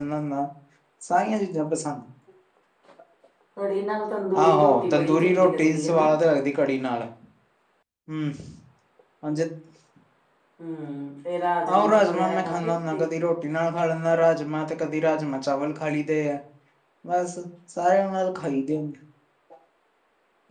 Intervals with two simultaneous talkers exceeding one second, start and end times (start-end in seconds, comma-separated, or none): 4.4-6.1, 11.7-13.1